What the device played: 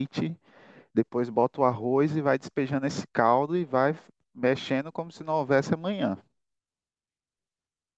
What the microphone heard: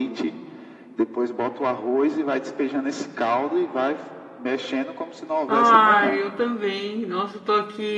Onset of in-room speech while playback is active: 5.5 s

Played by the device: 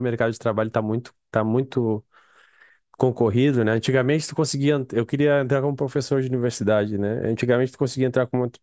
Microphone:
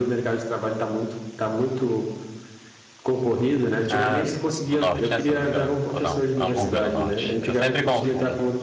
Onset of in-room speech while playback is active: 3.9 s

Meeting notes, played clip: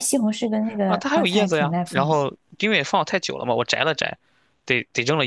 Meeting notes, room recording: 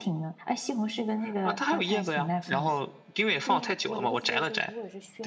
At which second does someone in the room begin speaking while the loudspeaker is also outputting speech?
3.4 s

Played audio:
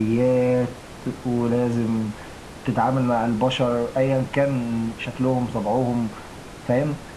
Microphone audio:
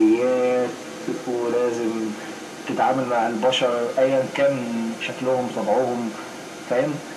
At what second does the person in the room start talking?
none

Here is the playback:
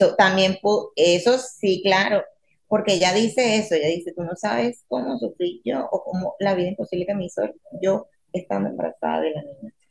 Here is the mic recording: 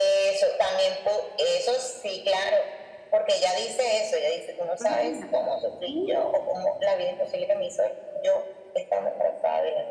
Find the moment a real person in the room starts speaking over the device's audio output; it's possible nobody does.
4.8 s

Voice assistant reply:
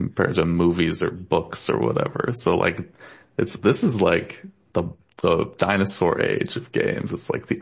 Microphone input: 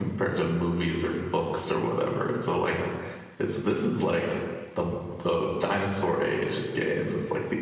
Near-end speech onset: none

